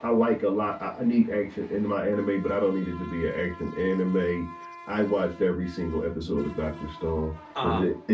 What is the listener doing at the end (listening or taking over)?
listening